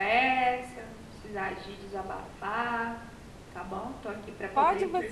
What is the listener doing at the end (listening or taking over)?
taking over